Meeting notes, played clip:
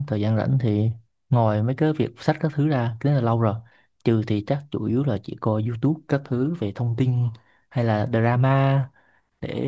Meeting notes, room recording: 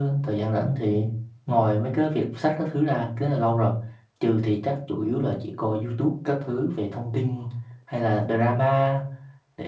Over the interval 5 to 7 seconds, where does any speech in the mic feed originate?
echo only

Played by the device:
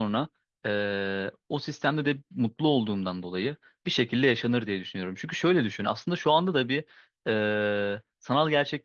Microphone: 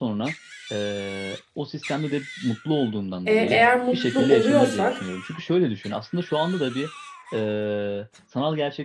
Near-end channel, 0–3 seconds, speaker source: echo only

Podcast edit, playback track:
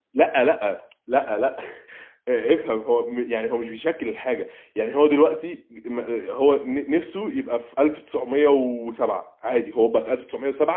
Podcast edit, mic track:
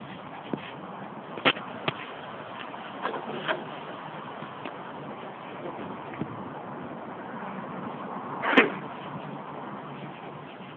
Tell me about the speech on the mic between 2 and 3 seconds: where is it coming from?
neither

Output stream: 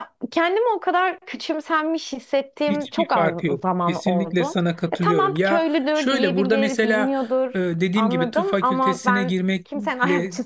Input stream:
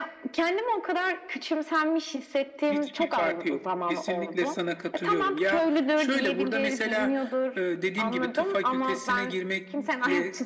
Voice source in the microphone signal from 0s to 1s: echo only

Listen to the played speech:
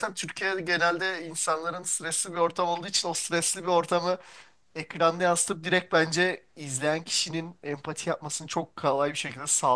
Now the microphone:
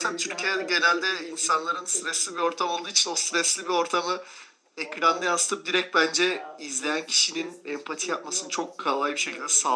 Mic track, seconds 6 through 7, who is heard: both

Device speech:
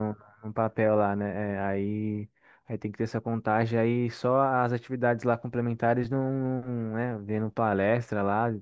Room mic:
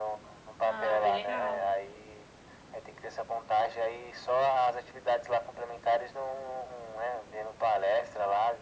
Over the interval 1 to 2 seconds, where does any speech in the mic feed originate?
both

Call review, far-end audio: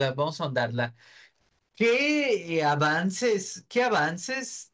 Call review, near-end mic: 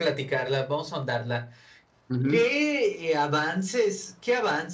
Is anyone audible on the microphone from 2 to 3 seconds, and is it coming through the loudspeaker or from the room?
both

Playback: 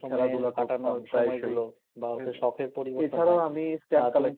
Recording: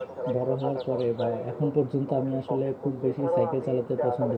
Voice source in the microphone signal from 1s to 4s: both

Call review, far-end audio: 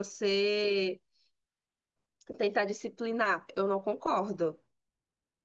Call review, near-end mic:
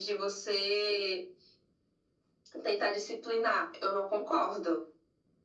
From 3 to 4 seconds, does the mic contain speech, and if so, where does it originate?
echo only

